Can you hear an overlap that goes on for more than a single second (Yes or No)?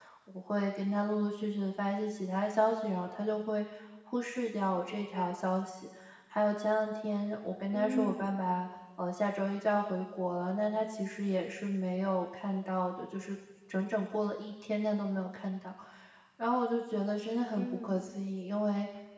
No